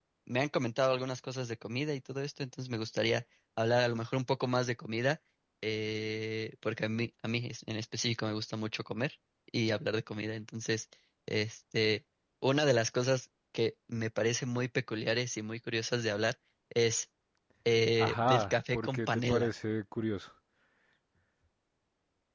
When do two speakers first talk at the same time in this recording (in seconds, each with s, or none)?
18.0 s